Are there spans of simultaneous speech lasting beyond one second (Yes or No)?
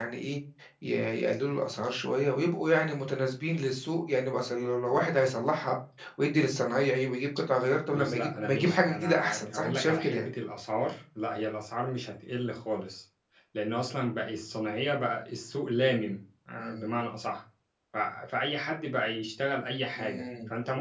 Yes